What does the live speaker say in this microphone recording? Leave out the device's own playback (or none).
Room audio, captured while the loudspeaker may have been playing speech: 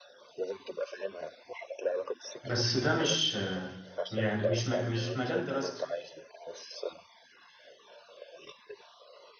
بس ده مش يعني مش م- مش مجال دراستي